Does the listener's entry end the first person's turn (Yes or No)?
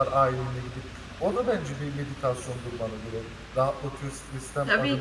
Yes